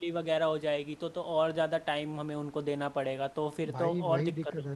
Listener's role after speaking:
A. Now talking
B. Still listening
A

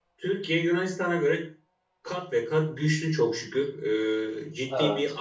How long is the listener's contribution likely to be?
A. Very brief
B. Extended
A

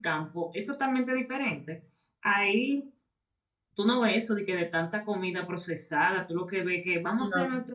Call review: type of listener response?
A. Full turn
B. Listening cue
B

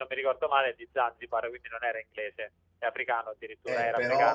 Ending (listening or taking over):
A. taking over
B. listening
A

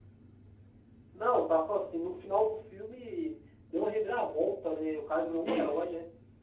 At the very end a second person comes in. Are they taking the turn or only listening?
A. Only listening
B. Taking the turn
B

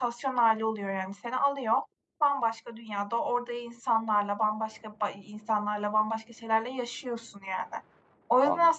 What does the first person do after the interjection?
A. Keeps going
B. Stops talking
A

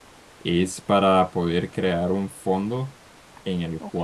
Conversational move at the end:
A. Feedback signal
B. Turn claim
A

